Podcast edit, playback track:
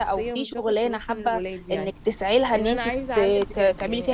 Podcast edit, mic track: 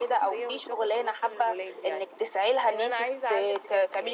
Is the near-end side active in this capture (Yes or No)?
No